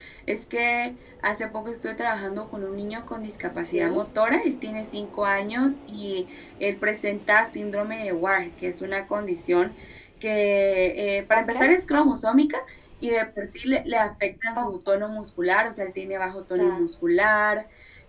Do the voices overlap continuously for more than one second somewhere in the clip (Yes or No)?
No